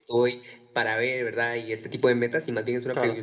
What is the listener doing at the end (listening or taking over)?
listening